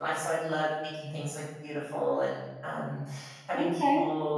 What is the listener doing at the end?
listening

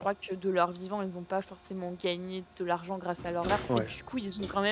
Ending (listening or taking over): listening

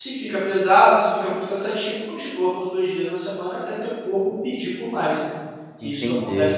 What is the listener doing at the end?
taking over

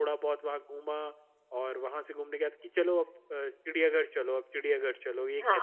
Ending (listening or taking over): taking over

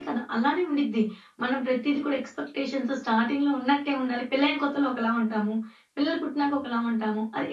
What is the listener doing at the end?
listening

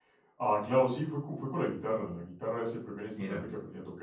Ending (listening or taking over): listening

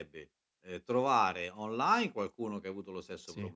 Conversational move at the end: listening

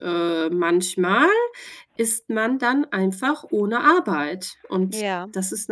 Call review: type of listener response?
listening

